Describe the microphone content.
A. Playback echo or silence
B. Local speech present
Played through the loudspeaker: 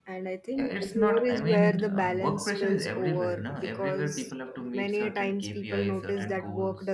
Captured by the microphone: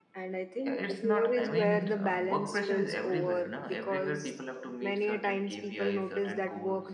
A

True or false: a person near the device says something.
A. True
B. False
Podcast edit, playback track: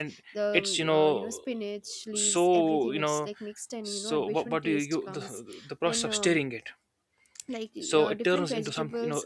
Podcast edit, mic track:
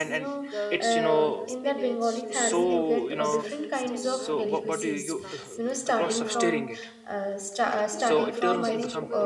A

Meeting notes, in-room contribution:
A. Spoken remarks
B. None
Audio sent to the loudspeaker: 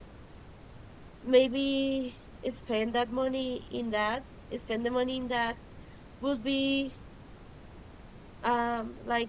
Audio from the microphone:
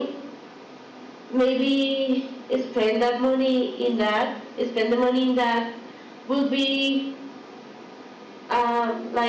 B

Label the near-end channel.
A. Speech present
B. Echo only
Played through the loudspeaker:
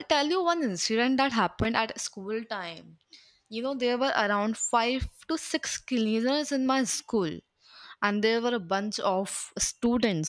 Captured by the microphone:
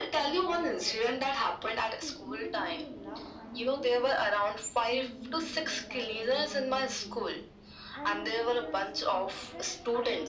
A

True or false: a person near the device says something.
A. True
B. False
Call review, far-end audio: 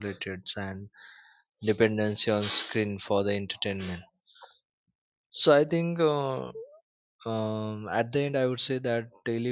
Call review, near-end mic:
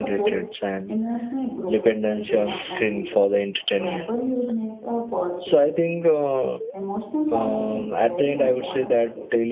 A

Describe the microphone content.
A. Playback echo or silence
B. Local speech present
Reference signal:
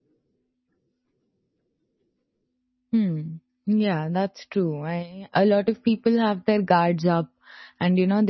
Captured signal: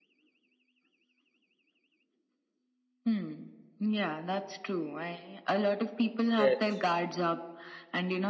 B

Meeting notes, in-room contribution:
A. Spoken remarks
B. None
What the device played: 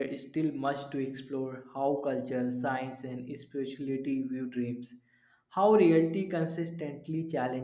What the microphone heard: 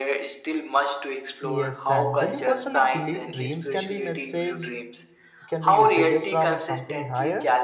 A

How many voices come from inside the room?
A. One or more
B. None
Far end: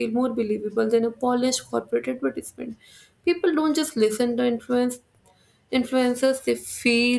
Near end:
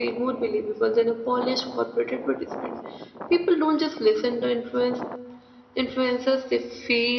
B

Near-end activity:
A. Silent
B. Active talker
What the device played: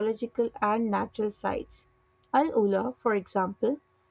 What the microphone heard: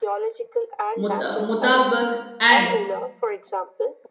B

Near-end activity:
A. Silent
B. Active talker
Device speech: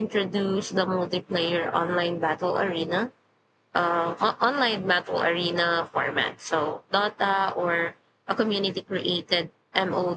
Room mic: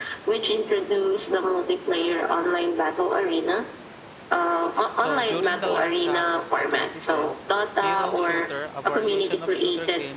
B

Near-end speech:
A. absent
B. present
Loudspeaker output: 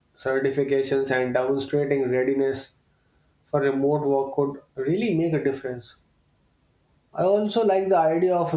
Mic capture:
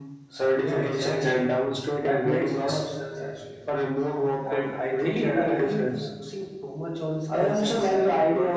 B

